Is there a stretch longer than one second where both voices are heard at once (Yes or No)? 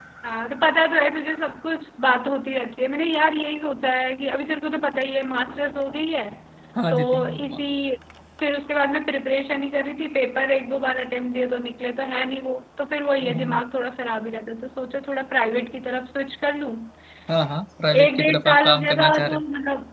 Yes